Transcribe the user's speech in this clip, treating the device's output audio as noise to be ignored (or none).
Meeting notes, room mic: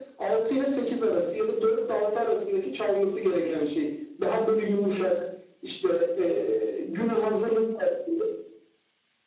none